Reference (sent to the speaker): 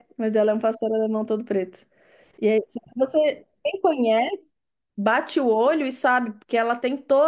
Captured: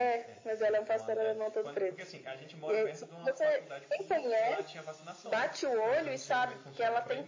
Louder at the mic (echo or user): echo